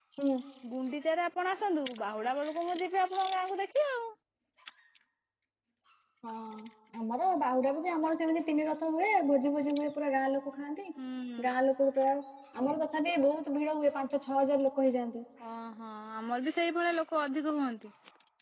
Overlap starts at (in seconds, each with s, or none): none